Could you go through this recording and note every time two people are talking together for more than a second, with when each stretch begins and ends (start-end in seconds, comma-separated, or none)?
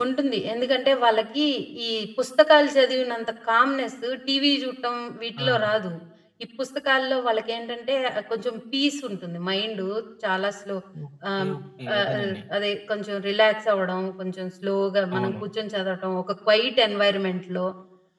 none